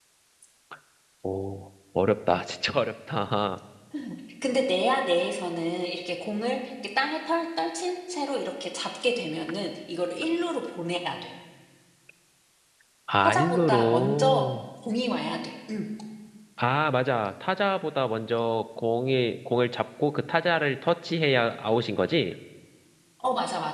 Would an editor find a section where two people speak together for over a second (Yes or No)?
Yes